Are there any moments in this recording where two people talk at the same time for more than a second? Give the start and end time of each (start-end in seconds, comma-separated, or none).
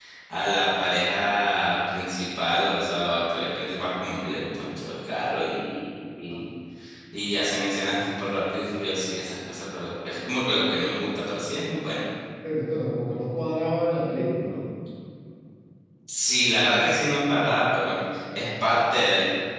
none